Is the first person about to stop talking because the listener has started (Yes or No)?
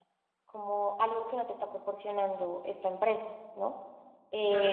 No